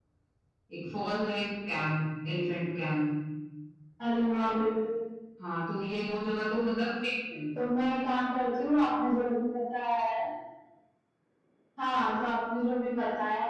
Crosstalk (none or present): none